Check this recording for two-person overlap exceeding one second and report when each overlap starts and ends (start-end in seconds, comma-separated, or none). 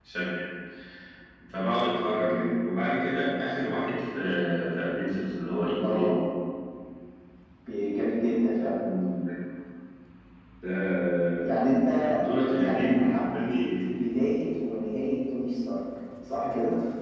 12.6-13.9